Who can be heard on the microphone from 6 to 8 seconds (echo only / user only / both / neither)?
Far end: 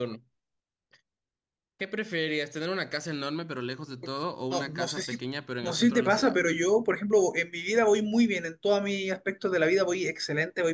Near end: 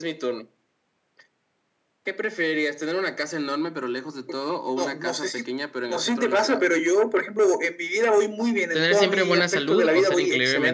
echo only